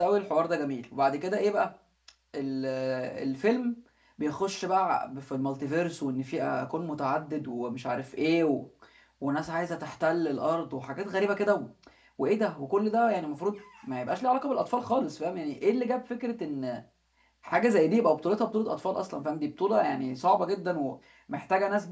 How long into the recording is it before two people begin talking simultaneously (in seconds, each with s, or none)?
none